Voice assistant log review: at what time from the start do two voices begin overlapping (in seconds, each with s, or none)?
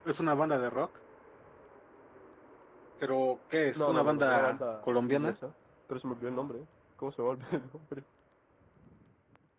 3.8 s